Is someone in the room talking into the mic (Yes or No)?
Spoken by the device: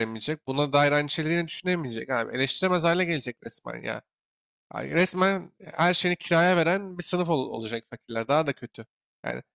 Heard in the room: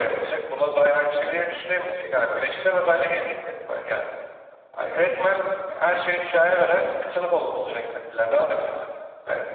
No